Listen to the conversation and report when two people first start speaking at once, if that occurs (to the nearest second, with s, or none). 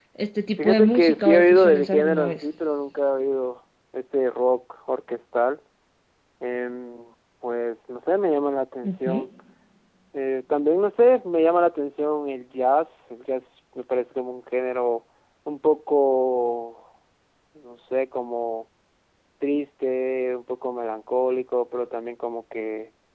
1 s